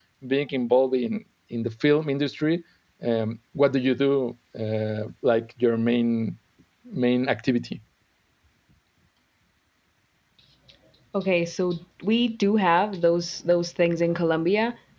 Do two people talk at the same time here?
No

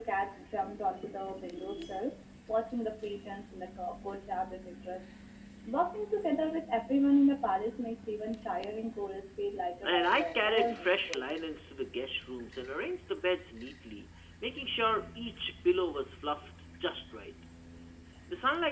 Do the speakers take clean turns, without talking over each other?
No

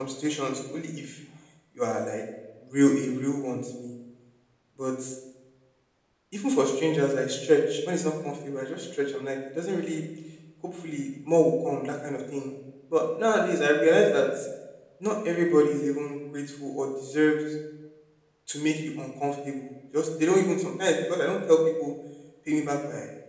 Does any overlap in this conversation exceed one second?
No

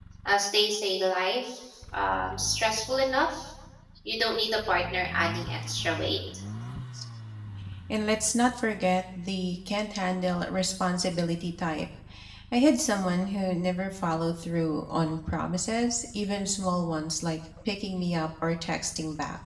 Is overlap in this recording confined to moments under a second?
Yes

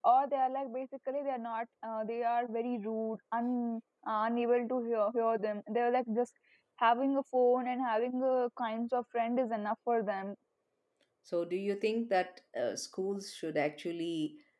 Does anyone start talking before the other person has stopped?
No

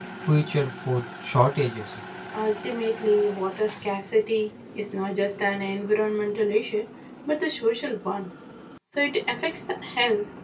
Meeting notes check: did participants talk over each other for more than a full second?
No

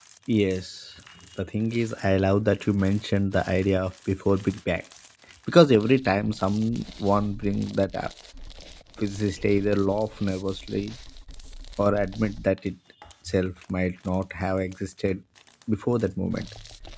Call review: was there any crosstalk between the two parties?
No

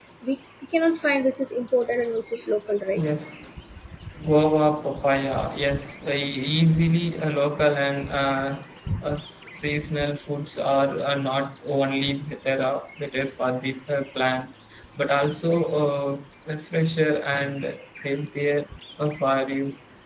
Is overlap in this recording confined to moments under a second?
Yes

